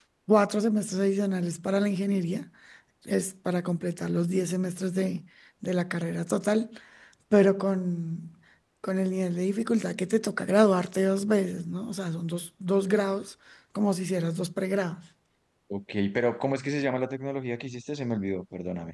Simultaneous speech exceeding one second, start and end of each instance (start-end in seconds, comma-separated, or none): none